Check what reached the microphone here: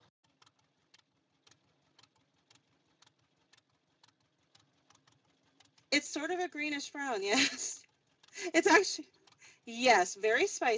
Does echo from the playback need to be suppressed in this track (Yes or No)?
No